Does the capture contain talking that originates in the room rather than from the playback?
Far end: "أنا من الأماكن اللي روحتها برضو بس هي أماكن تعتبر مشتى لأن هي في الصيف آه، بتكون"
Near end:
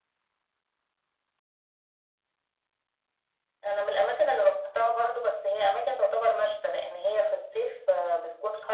No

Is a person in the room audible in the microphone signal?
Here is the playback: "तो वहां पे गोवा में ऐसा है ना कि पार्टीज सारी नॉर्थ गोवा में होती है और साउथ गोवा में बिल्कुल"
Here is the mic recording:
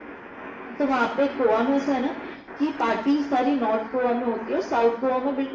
No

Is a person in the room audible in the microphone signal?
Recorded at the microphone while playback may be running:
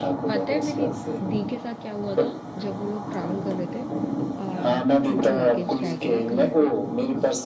Yes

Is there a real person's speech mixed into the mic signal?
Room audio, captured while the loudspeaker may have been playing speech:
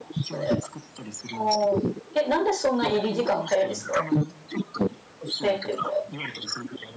Yes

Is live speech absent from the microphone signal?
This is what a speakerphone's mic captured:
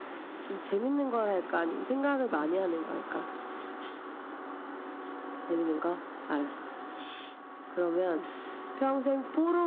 No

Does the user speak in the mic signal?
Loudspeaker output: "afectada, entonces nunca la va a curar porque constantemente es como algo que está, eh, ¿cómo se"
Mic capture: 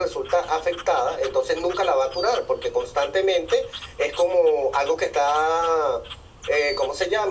No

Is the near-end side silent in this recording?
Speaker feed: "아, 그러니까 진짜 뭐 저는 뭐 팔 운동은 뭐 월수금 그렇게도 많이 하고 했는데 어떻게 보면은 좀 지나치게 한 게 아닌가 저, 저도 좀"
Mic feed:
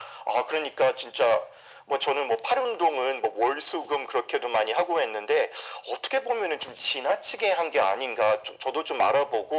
Yes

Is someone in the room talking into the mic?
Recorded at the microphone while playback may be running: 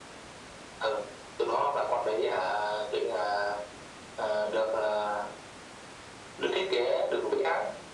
No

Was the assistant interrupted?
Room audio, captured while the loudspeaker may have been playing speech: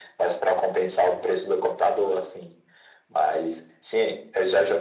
No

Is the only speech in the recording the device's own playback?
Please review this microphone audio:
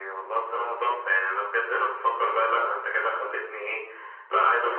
Yes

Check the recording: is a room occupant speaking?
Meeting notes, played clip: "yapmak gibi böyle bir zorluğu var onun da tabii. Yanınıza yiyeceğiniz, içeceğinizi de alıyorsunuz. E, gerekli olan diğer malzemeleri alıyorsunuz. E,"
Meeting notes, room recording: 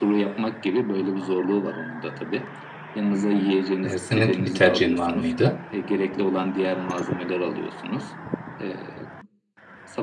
Yes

